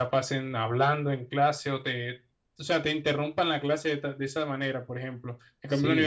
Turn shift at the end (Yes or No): No